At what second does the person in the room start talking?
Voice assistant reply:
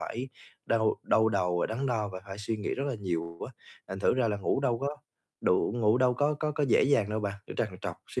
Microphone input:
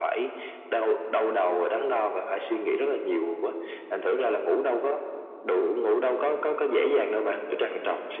none

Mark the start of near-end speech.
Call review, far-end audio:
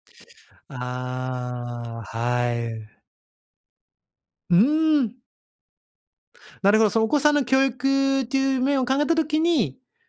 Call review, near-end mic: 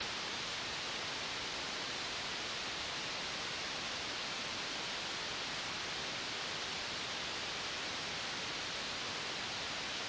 none

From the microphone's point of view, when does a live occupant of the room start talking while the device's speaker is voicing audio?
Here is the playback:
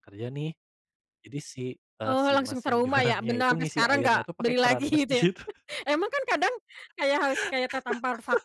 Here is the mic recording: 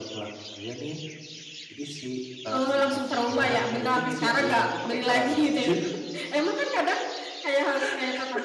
none

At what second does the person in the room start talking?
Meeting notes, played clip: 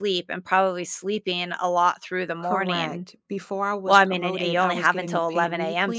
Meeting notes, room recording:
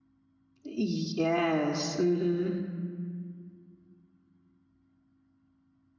0.6 s

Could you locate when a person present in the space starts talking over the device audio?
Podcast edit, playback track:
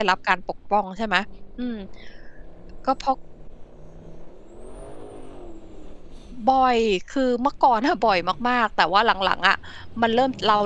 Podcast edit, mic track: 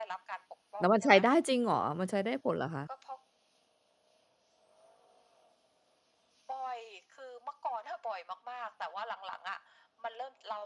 0.8 s

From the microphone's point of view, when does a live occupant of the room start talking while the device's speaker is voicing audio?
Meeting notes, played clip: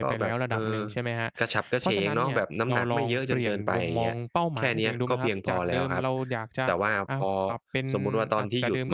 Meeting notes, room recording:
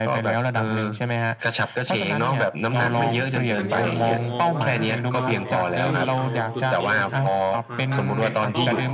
2.7 s

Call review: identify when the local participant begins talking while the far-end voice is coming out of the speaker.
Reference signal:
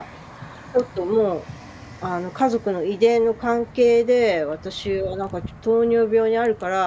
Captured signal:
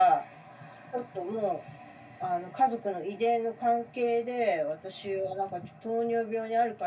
none

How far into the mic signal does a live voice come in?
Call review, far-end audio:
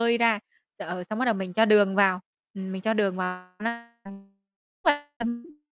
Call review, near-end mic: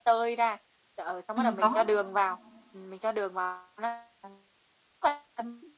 1.3 s

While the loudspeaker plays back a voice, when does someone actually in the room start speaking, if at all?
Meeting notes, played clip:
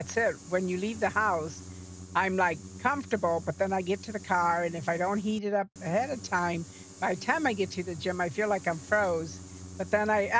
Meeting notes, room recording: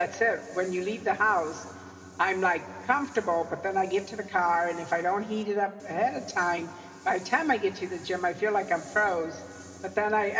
none

